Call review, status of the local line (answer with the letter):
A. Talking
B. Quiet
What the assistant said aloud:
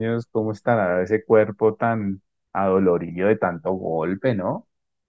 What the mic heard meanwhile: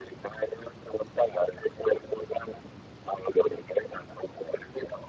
B